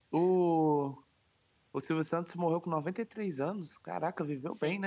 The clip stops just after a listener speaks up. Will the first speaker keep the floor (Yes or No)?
No